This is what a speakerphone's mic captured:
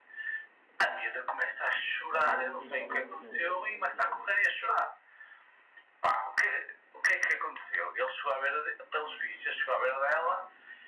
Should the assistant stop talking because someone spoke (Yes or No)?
Yes